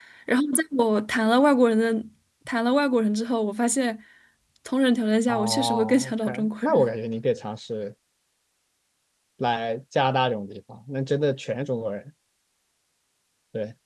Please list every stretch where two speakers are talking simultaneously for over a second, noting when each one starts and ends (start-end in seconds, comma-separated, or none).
5.3-6.9